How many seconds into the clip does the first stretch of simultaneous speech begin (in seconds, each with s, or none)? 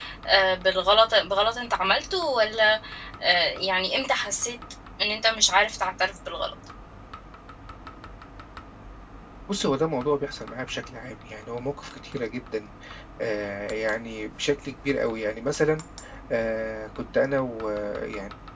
none